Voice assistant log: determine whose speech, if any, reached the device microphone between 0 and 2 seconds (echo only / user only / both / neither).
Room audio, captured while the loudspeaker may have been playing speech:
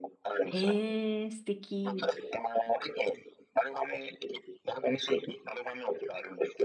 both